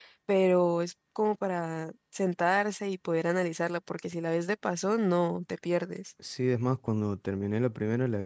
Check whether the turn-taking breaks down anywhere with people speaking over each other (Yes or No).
No